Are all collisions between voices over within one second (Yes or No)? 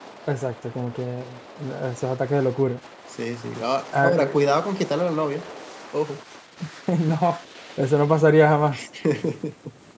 Yes